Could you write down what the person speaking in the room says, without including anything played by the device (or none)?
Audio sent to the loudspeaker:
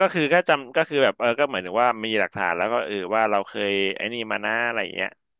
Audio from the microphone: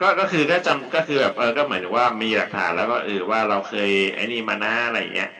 none